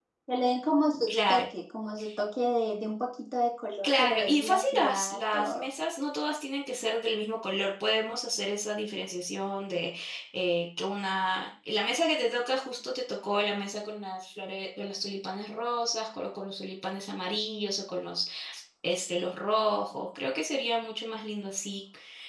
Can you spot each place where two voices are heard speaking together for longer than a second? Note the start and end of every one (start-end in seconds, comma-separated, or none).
3.8-5.7